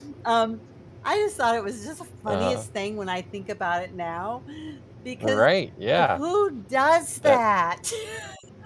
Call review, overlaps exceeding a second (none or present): none